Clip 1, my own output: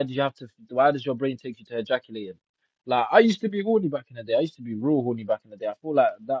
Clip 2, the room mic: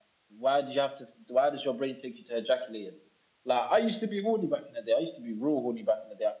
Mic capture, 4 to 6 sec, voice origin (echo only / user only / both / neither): echo only